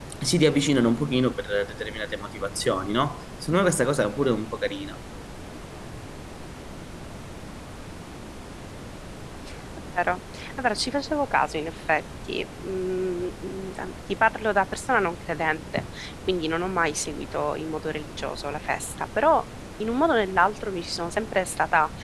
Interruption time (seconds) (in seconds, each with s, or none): none